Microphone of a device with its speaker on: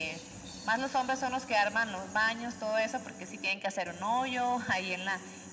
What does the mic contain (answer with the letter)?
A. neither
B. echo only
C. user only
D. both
B